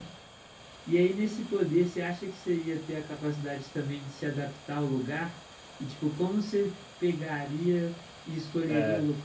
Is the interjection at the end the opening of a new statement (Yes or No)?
No